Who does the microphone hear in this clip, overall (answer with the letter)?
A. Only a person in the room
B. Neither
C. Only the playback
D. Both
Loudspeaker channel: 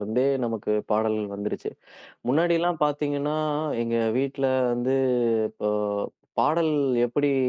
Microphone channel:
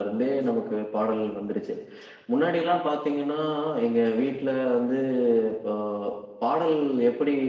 C